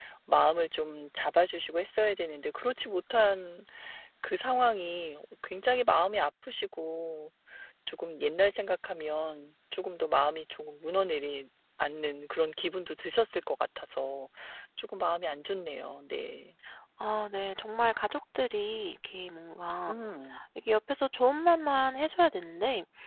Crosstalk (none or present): none